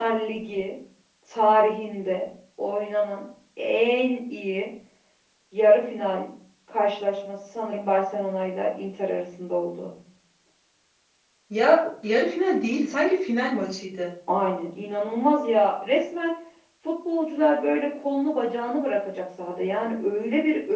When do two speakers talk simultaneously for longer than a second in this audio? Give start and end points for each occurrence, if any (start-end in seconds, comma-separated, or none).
none